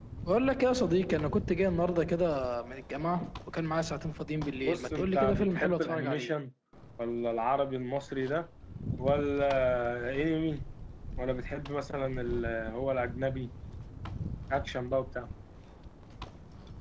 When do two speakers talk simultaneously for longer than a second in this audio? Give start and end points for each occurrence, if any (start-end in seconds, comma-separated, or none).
4.6-6.3